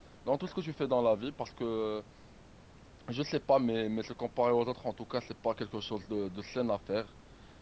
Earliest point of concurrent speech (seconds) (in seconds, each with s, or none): none